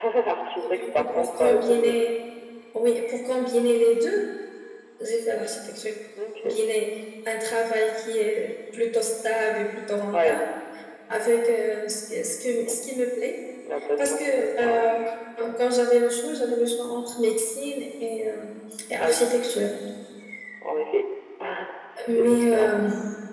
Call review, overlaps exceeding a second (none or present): present